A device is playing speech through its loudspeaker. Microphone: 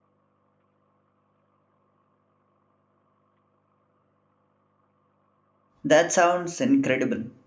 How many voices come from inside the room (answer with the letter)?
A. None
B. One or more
B